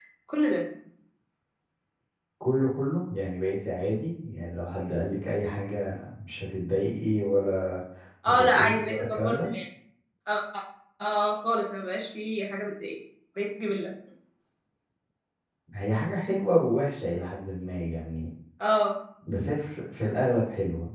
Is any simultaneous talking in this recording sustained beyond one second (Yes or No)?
Yes